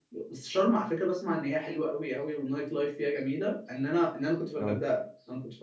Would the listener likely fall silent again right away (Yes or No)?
Yes